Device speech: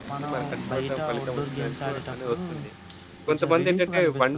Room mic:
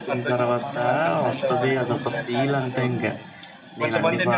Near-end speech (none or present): present